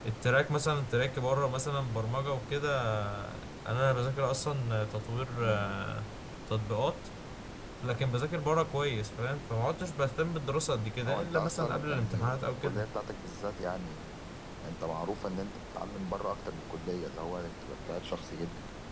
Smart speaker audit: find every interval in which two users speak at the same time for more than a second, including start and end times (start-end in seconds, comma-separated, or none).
11.1-12.9